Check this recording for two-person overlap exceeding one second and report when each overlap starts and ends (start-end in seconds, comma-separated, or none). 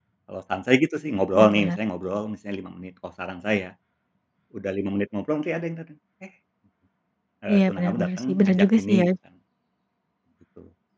7.5-9.1